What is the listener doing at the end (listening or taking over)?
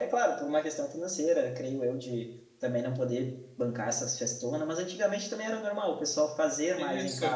taking over